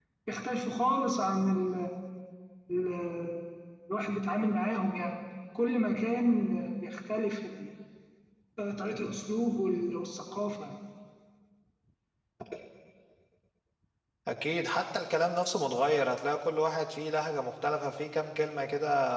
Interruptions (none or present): none